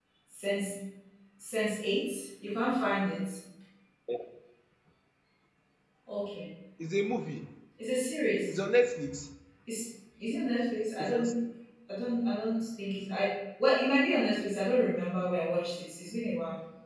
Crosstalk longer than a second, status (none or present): none